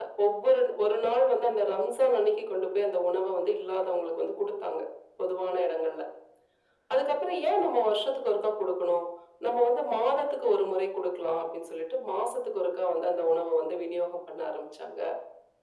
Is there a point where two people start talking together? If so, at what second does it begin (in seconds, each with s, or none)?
none